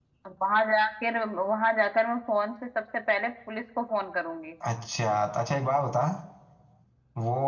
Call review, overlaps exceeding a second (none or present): none